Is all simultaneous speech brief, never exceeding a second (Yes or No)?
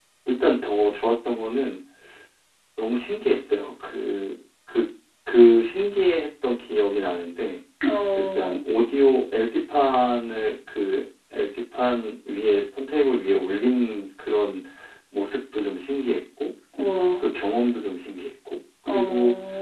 Yes